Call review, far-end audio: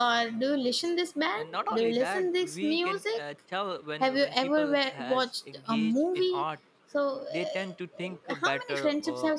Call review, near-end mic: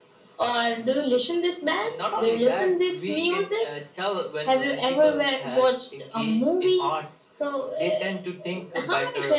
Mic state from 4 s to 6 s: echo only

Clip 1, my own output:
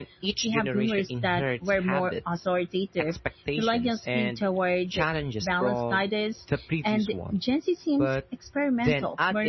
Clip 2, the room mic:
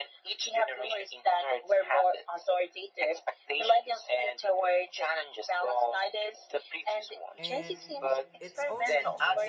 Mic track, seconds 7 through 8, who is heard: both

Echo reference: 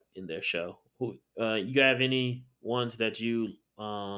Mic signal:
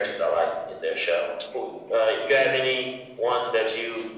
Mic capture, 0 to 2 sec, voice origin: echo only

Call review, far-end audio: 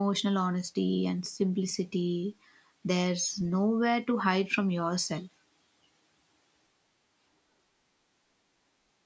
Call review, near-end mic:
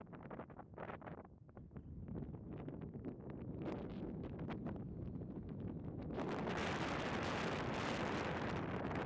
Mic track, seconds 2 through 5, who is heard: neither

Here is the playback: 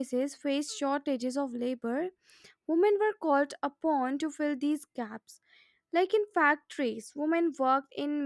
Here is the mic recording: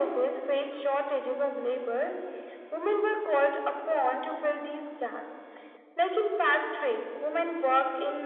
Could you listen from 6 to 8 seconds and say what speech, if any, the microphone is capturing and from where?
echo only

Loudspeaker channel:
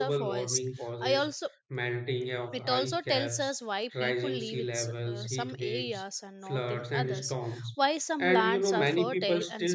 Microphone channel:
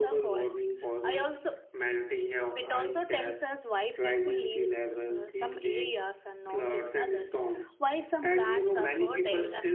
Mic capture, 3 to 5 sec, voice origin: echo only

